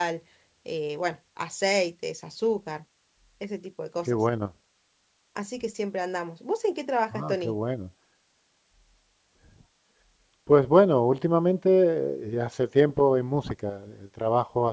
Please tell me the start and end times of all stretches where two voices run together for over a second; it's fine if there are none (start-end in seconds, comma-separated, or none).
none